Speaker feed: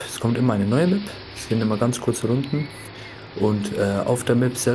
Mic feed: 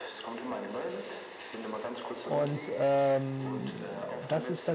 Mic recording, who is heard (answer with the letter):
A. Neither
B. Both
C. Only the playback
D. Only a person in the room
B